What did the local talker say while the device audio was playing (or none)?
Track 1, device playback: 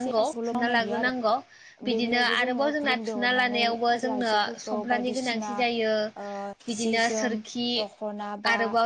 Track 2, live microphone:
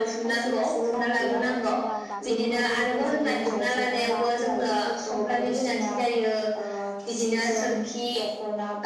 जोंनि ओनसोलाव दासिमबो गोदो जेरै आइजोफोरा